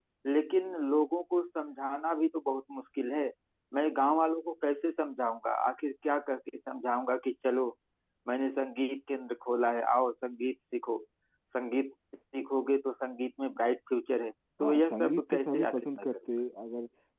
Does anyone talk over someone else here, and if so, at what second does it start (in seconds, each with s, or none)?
14.6 s